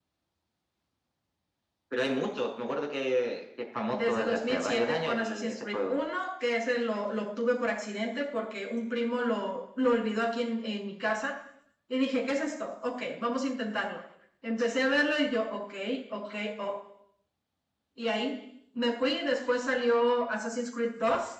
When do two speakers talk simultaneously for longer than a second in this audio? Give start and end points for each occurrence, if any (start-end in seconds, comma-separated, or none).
3.9-6.0